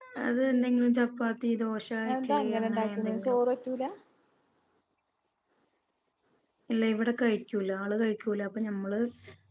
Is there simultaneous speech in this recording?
Yes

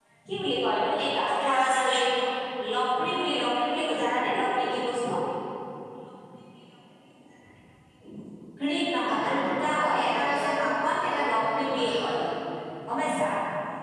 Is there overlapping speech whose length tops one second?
Yes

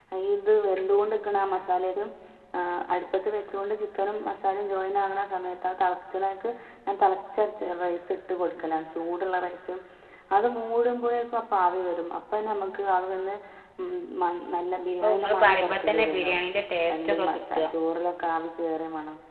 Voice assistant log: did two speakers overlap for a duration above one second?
Yes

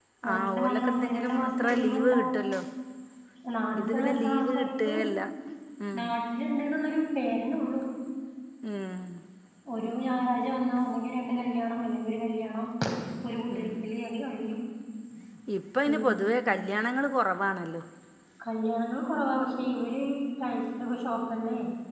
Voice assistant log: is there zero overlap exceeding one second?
No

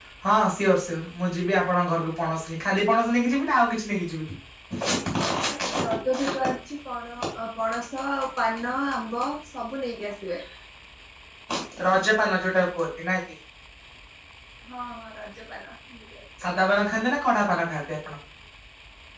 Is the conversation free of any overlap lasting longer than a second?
Yes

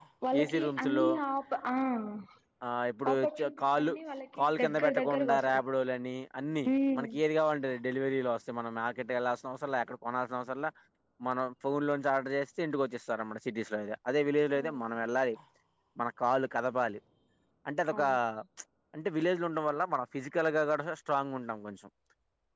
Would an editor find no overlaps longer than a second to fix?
No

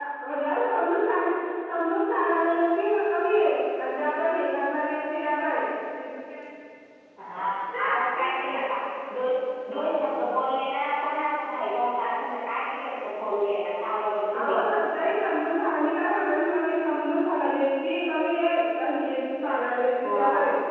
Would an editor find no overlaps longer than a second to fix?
Yes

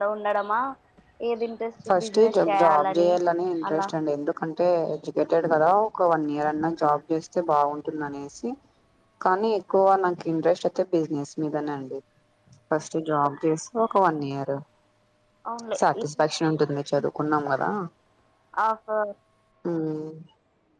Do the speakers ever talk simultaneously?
Yes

